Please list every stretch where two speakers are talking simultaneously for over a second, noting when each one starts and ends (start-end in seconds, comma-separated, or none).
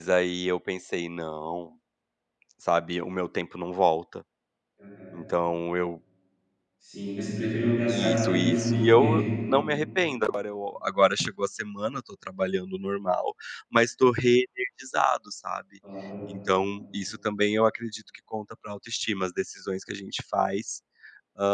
7.9-9.2